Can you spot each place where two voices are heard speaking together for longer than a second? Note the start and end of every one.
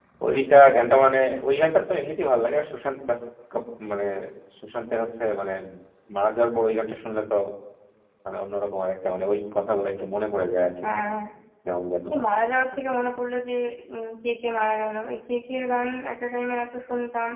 none

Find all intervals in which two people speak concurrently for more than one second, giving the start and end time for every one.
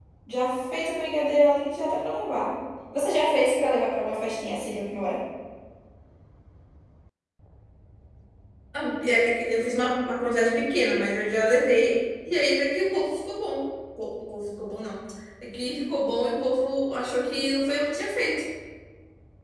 none

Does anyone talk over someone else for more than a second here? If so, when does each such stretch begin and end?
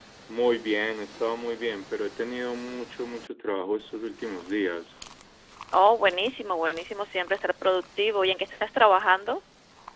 none

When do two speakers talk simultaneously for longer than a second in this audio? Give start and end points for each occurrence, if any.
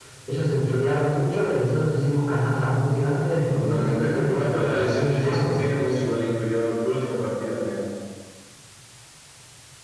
3.5-5.6

